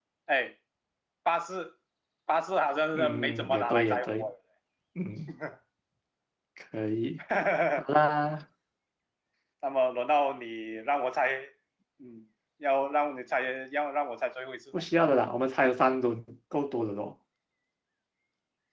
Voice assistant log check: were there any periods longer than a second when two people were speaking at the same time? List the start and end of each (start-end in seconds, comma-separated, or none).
2.9-4.3